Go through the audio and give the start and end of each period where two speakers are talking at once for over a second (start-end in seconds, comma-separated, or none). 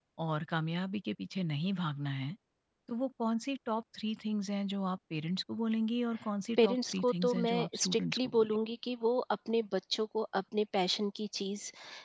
6.6-8.6